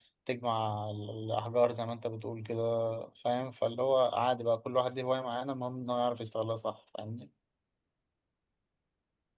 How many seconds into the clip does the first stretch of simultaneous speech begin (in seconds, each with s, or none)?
none